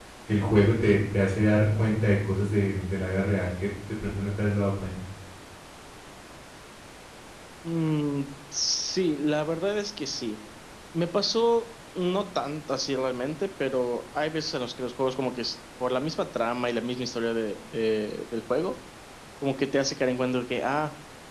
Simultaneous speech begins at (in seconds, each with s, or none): none